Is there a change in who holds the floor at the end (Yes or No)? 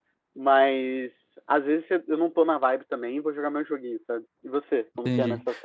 Yes